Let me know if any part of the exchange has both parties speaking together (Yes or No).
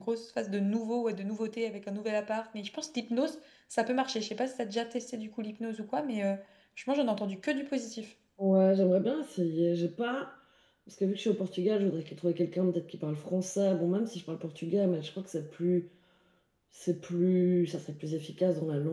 No